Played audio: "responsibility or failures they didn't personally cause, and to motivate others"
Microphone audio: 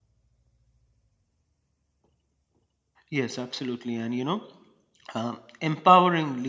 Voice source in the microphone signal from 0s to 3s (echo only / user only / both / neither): neither